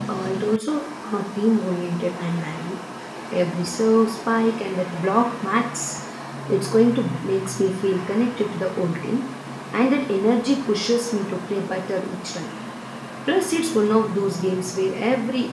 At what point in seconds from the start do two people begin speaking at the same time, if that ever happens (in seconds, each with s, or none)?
none